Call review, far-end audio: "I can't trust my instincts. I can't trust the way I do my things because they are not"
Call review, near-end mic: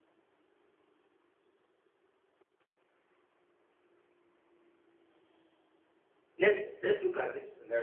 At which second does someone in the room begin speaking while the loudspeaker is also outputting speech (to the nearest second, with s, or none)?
6 s